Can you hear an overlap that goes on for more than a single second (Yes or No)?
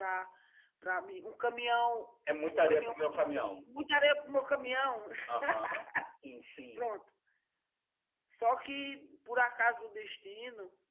Yes